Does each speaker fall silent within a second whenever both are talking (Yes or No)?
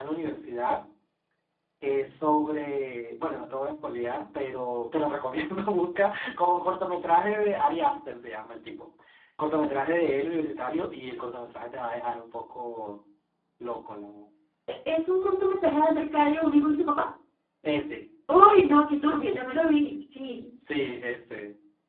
Yes